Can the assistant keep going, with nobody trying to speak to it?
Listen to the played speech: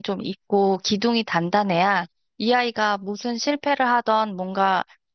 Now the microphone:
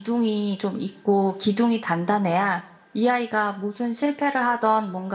Yes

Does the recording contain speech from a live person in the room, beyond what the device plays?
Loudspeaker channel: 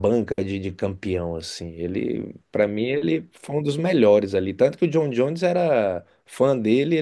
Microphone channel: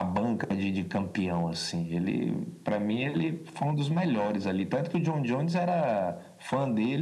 No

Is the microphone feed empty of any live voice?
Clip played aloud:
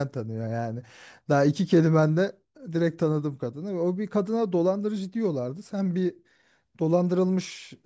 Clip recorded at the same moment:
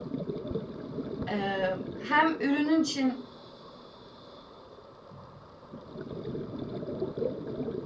No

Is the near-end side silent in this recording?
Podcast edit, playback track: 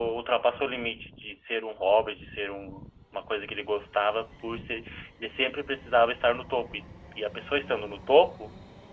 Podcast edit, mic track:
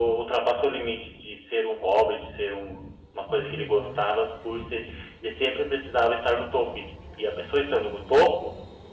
No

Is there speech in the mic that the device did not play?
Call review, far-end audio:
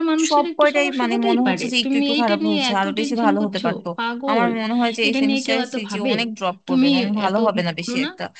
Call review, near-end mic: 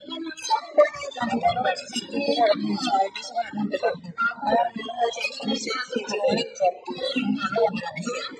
No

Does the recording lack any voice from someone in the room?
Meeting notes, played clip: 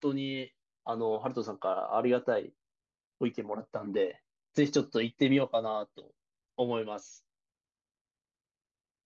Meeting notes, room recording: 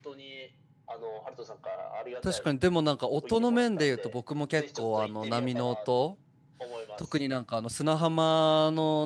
No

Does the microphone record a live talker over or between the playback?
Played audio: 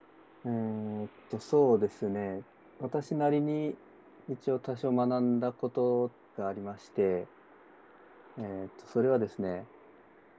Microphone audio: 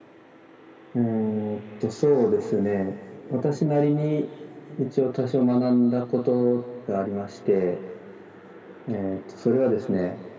No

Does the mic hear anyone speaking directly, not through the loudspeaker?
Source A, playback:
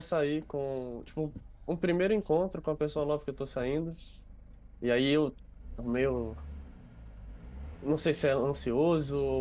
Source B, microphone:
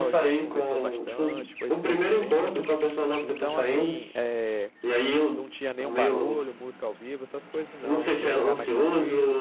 Yes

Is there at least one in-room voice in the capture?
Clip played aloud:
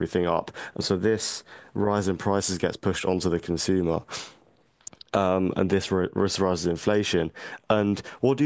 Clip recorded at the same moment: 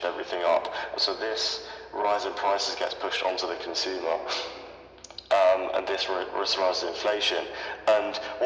No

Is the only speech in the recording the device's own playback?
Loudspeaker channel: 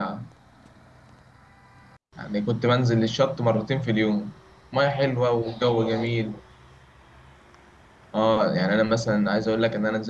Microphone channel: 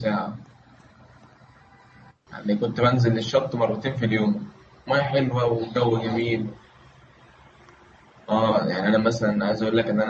Yes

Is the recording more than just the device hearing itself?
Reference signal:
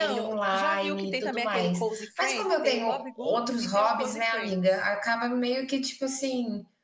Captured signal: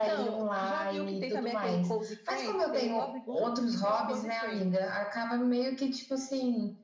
No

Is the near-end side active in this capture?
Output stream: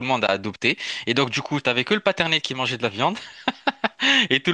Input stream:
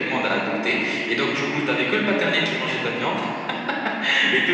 No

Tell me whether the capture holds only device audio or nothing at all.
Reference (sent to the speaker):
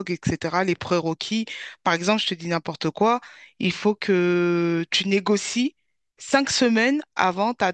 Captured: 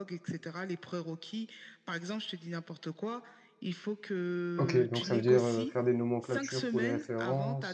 No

